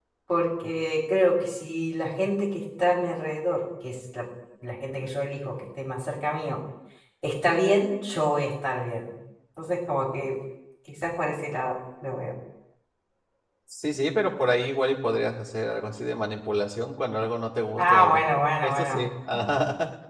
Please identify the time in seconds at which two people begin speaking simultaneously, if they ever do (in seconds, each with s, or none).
17.8 s